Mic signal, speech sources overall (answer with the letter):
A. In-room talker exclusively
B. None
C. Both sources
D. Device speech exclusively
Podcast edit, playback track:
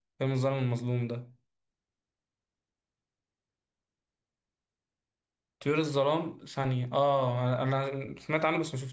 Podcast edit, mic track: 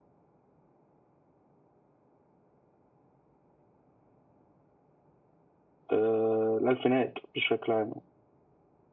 A